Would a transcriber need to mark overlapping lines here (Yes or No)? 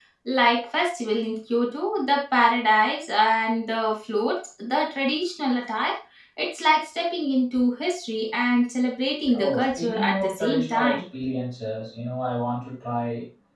Yes